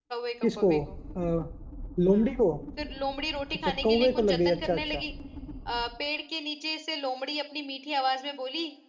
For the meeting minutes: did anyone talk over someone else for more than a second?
Yes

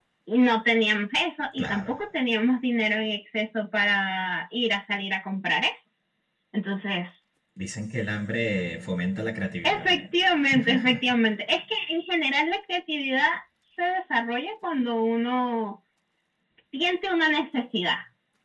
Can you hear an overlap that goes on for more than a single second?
No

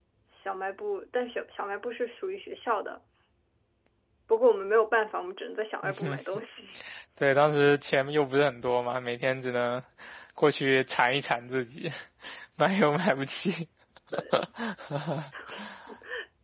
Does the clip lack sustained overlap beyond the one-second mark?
Yes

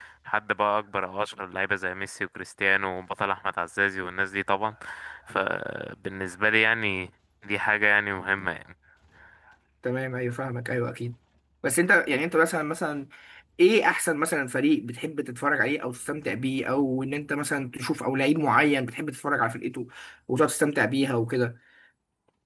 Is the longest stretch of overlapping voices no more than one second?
Yes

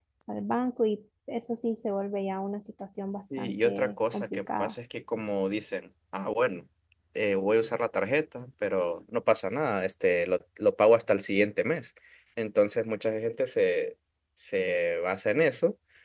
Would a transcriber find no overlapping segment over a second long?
No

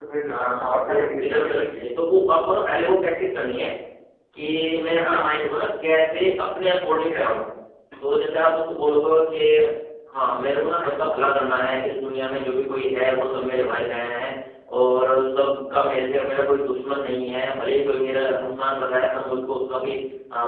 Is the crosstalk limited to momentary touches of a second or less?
No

